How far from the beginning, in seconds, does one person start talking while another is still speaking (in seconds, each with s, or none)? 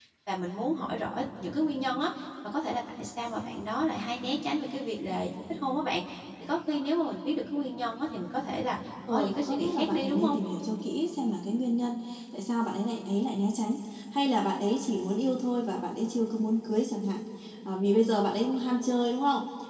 9.1 s